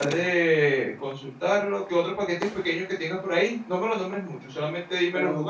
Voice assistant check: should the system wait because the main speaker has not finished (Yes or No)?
No